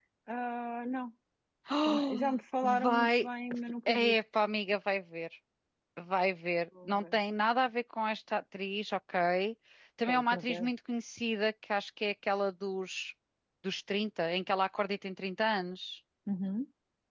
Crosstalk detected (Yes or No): Yes